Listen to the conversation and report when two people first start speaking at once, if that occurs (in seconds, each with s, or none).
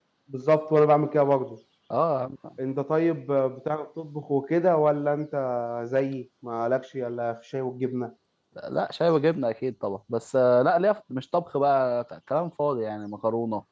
none